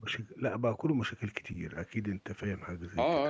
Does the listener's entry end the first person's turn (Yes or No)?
Yes